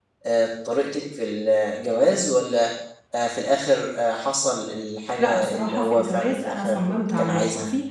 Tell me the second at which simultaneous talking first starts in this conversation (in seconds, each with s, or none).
5.2 s